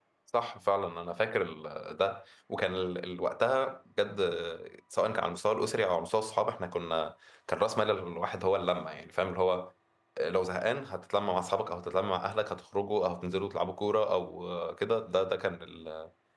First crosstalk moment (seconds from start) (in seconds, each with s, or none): none